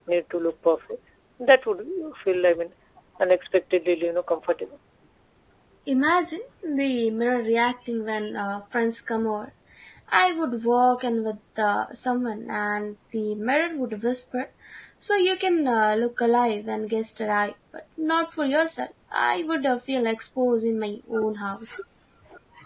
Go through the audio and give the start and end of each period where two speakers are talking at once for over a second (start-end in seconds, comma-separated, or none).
none